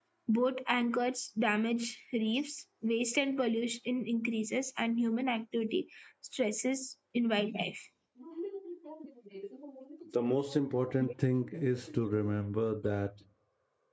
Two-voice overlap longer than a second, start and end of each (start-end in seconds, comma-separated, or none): none